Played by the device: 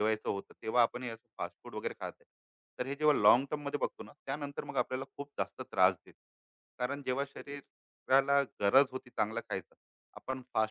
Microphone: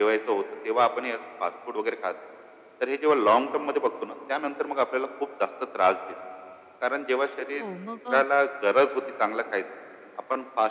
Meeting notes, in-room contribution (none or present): present